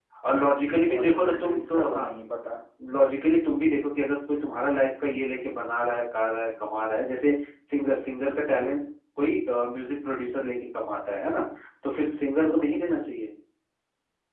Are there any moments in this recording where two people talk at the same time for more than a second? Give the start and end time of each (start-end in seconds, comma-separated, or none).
0.9-2.1